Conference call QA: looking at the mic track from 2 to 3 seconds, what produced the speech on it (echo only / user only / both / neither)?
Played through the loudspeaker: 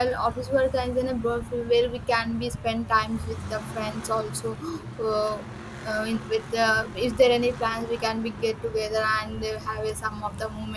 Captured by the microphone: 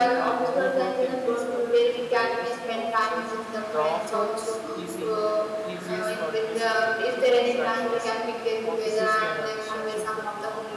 both